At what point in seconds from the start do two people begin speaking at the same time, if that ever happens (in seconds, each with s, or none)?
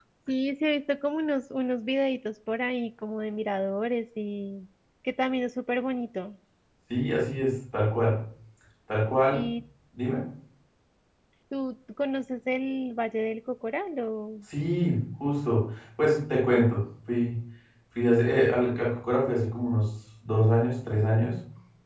none